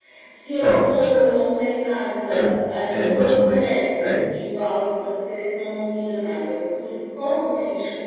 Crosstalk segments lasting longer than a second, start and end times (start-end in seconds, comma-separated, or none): 3.0-4.3